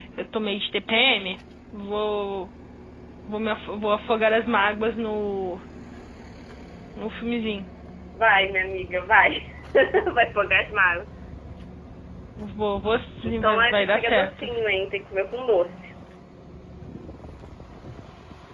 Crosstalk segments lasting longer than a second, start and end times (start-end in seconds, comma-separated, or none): 13.2-14.5